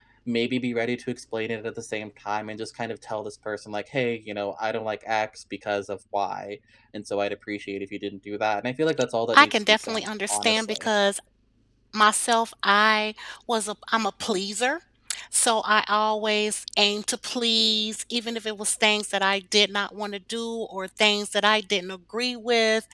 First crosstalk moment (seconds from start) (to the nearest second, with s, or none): 9 s